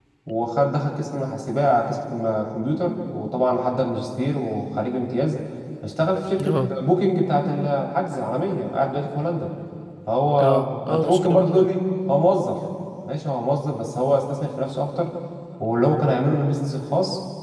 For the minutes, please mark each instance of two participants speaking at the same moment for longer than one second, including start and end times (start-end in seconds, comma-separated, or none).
10.4-11.7